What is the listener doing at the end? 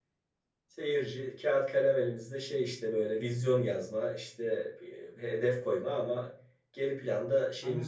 taking over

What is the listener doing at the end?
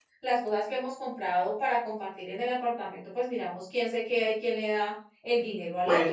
taking over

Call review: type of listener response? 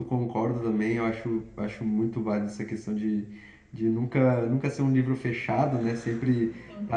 listening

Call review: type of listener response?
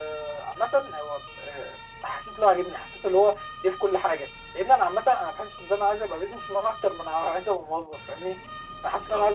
listening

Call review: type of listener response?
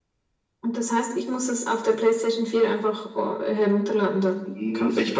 taking over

